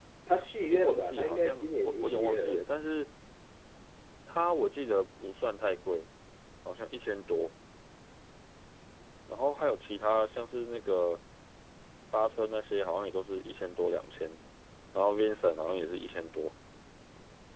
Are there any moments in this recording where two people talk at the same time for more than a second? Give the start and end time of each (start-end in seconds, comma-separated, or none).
0.6-2.6